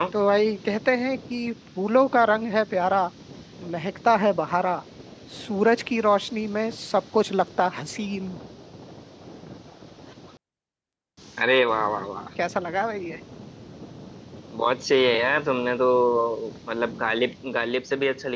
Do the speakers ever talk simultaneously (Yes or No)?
No